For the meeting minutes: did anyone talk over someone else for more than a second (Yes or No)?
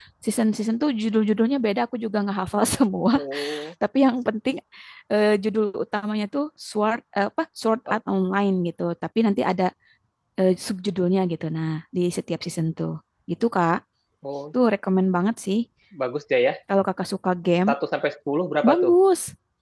No